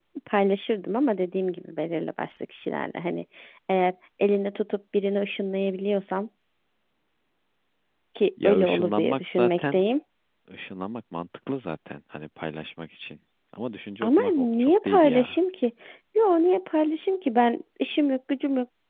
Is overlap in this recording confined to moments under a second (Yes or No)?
No